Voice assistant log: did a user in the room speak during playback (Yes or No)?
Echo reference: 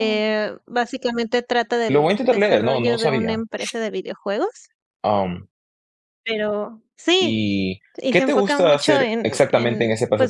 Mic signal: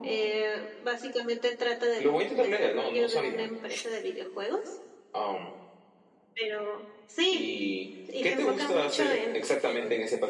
No